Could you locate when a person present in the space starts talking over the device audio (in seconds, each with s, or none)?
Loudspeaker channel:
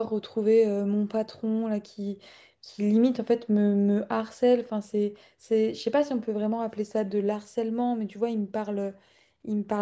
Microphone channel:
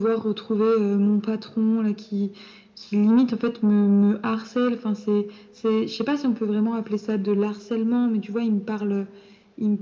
none